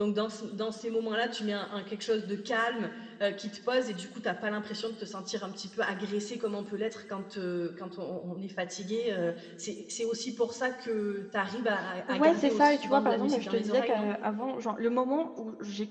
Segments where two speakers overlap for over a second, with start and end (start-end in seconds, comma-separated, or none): 12.1-14.1